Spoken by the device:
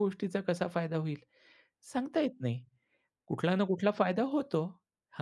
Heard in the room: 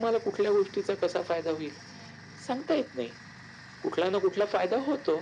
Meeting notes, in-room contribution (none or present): none